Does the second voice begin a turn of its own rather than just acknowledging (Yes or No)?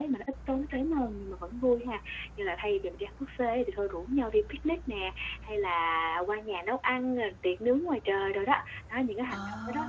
No